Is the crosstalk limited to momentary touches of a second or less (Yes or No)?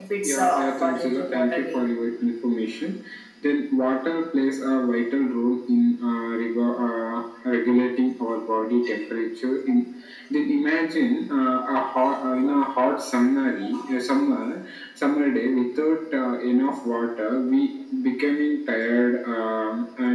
No